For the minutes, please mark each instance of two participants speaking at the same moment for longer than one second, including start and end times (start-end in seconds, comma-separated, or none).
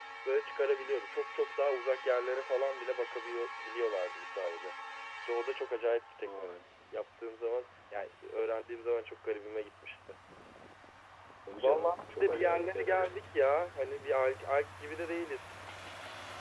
11.6-13.1